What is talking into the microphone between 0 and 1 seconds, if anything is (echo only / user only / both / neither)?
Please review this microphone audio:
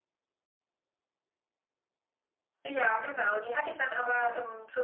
neither